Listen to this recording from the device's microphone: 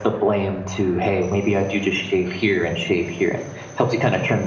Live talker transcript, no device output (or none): none